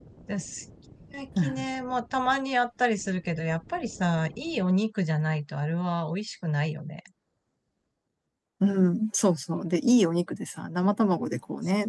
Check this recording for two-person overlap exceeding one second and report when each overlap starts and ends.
none

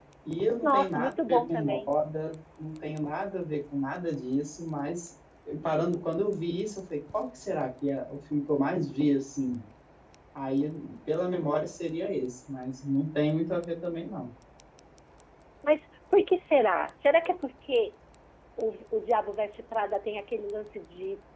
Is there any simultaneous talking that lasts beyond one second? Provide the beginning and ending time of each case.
0.6-1.9

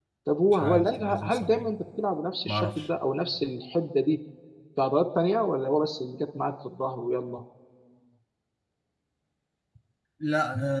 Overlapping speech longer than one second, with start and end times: 0.5-1.7

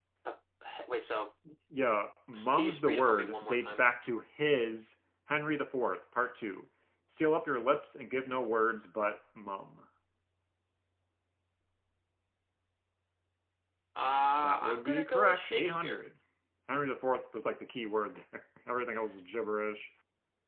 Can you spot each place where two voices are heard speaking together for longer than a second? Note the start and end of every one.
2.3-3.9, 14.4-16.0

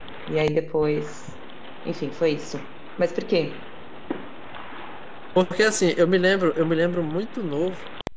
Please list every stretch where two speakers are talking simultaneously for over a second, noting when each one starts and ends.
none

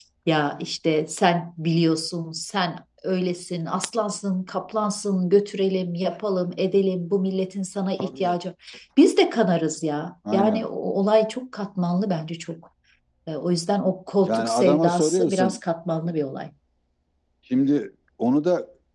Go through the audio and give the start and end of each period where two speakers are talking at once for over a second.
14.2-15.6

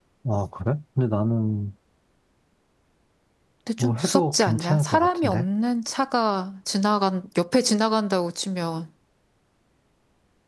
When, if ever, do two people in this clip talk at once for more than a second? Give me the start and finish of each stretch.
3.8-5.4

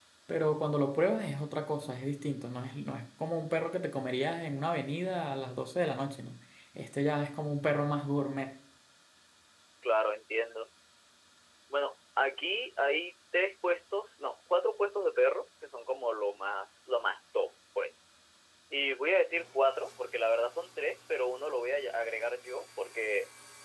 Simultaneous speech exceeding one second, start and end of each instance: none

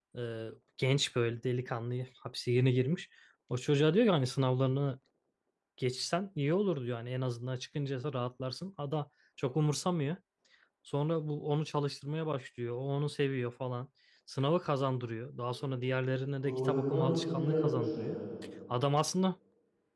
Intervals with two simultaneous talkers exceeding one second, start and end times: 16.4-18.1

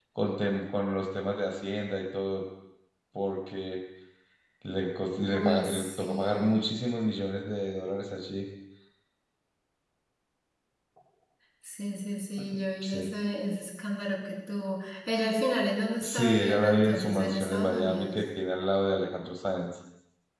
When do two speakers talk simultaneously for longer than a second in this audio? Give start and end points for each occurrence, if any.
5.3-6.7, 16.0-18.2

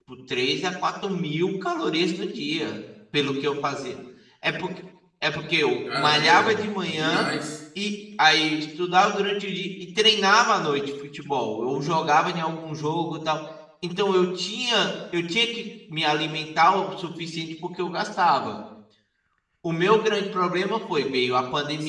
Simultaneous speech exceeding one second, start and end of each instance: 5.9-7.3

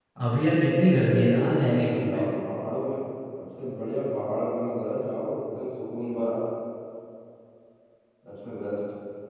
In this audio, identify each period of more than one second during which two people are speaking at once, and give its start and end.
1.0-2.2

